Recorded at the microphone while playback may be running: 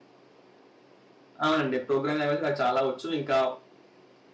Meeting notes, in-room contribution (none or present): present